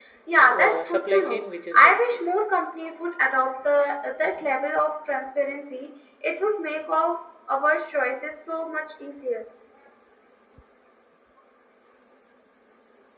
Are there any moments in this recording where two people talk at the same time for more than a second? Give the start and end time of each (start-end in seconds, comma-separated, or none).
0.5-2.2